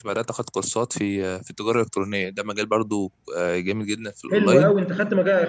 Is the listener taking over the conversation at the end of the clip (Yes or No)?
Yes